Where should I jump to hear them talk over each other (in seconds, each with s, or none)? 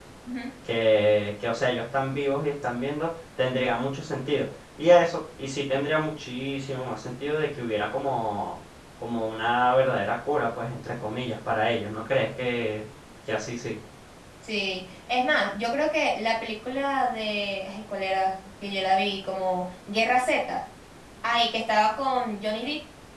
none